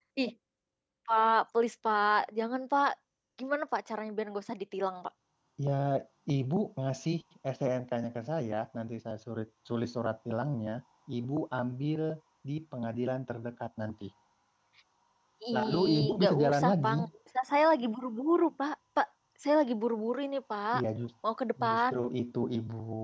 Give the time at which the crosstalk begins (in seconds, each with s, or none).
15.5 s